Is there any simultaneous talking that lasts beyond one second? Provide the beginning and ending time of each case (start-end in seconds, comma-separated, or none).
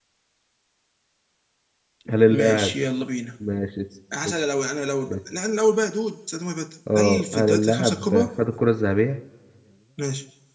7.0-8.3